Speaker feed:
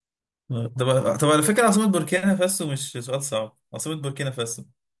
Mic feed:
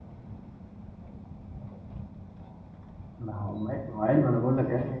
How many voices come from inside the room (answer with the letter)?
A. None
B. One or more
B